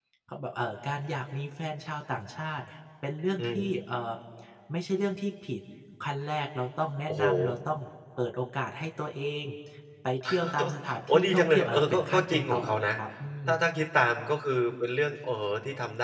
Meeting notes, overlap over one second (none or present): present